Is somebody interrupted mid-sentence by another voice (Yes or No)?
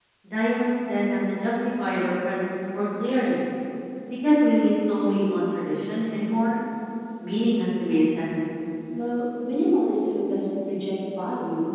No